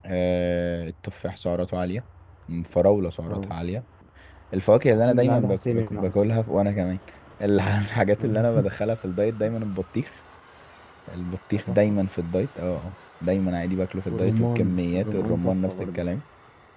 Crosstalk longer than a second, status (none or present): present